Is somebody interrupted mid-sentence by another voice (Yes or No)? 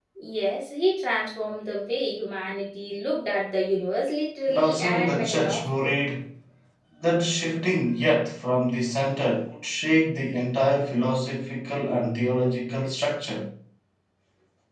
Yes